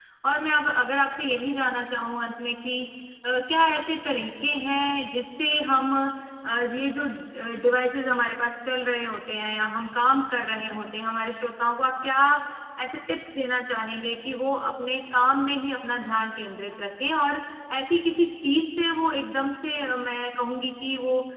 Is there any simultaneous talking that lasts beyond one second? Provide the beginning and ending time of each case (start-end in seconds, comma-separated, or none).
none